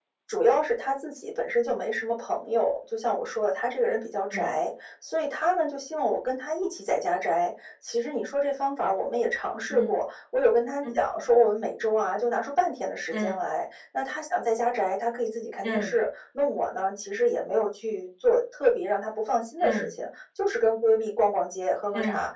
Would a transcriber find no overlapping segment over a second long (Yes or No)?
Yes